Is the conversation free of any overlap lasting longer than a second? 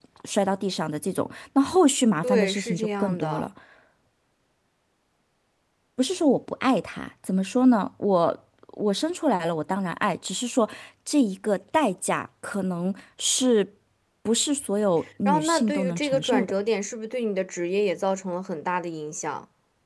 No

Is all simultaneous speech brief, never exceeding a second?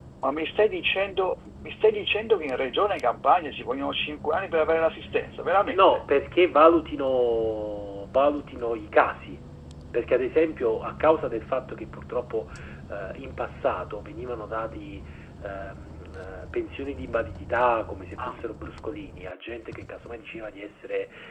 Yes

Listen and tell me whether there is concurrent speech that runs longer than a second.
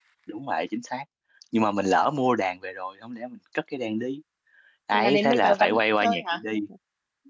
Yes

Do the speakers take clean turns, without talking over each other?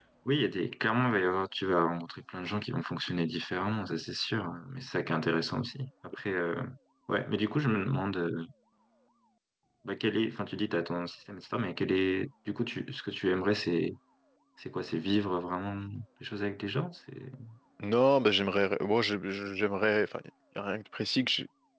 Yes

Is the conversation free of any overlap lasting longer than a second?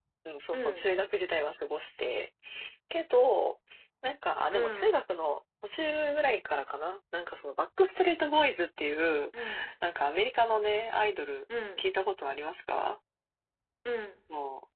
Yes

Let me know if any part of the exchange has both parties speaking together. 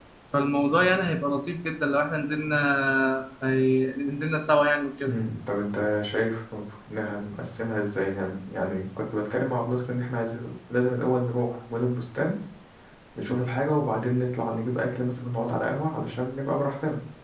No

